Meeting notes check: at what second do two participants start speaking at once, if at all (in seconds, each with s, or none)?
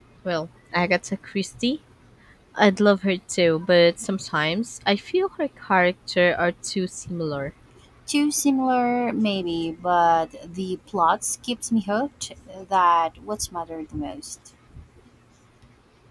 none